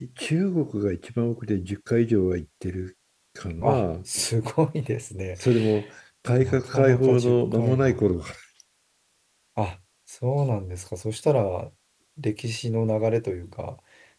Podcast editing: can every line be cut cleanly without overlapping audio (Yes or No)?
No